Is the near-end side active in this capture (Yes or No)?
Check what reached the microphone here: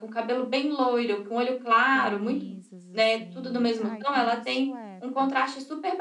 Yes